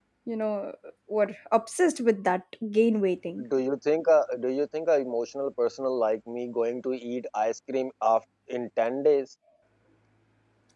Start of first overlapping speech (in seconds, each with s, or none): none